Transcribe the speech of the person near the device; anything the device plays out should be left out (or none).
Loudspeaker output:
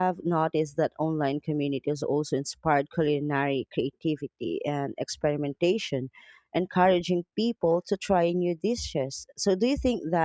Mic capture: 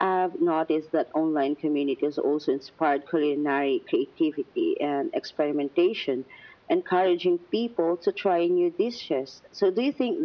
none